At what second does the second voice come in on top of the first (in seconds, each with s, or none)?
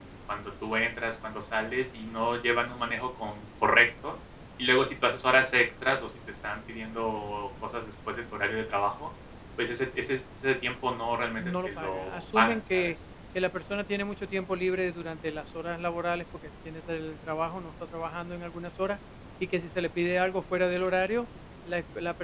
11.4 s